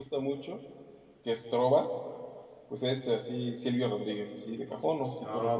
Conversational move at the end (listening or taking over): taking over